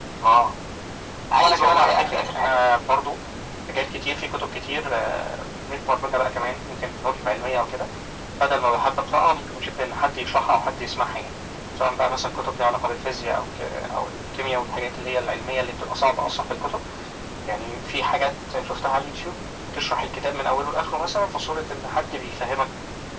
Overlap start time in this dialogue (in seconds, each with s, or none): 1.4 s